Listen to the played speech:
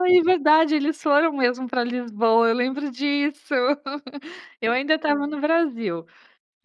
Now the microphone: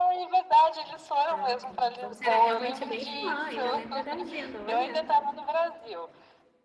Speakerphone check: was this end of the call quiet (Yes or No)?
No